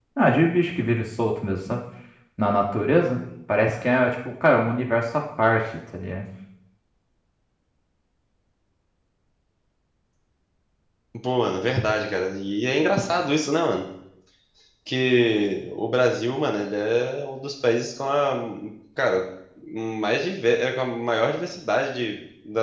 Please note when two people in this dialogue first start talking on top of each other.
none

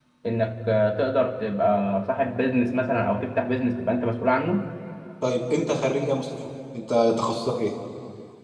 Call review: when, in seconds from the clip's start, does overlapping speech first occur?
none

